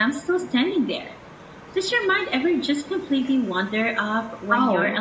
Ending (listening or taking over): taking over